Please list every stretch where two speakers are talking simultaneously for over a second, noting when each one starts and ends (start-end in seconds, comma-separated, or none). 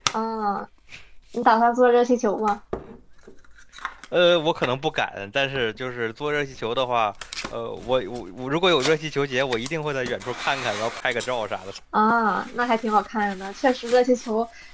none